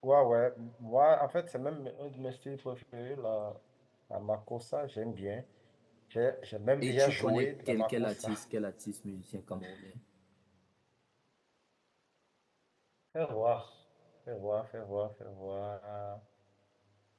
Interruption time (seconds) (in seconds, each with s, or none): 6.8 s